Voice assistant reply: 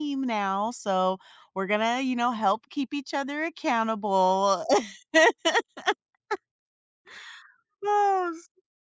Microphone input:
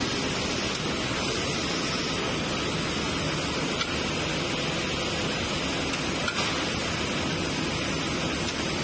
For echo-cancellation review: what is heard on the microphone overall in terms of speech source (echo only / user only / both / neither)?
neither